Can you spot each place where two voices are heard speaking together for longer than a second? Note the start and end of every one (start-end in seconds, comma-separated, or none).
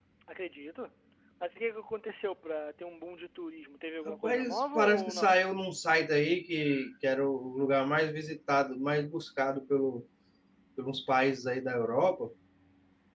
4.1-5.4